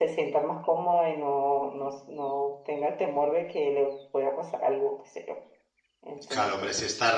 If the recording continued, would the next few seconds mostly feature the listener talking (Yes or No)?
Yes